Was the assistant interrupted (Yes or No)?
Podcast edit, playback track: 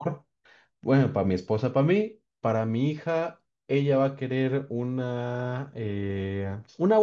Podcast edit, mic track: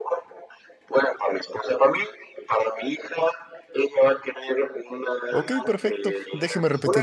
Yes